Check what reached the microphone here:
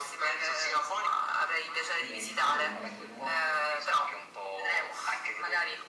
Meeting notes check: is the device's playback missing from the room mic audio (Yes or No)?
No